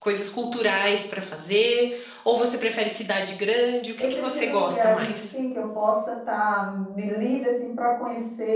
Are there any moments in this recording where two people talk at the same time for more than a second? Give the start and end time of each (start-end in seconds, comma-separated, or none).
4.0-5.3